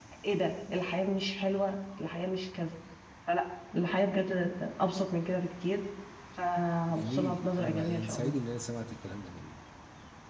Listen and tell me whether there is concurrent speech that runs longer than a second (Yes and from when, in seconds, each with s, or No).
Yes, from 6.9 s